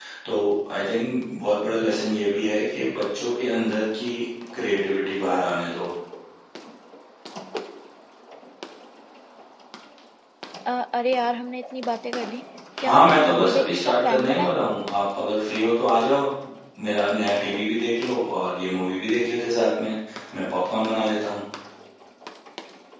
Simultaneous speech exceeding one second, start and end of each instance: 12.8-14.5

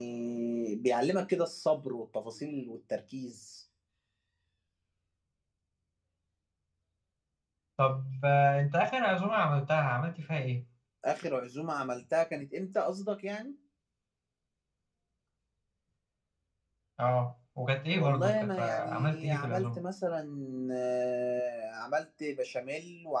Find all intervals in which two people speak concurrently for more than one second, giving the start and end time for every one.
17.9-19.8

